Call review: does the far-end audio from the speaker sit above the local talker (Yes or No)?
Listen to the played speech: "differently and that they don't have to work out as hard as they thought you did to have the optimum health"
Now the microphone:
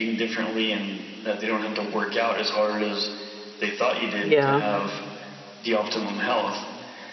No